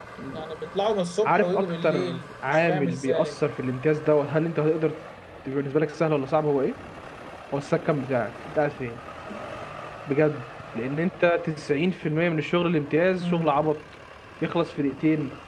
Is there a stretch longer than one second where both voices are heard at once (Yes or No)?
Yes